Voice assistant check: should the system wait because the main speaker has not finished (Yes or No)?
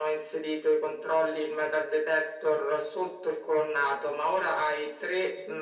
Yes